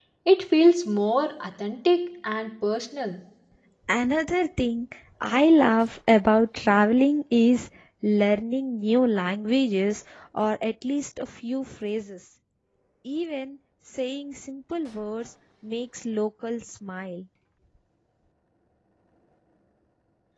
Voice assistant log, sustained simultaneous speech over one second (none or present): none